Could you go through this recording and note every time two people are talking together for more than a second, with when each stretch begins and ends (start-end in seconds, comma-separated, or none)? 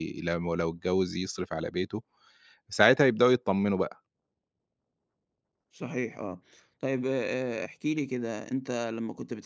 none